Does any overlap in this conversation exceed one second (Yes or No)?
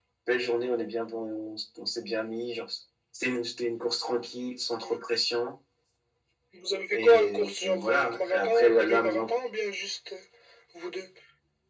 Yes